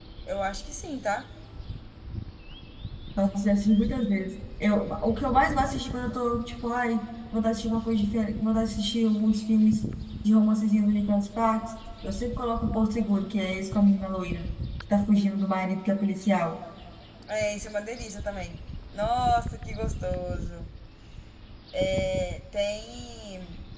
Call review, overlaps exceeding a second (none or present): none